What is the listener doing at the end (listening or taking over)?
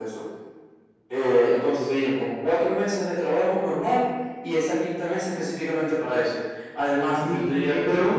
taking over